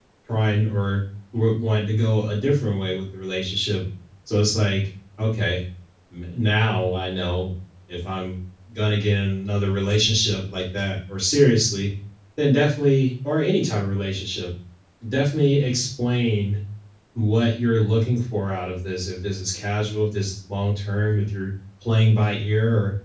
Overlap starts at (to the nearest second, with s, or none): none